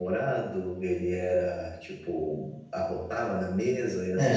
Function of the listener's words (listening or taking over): taking over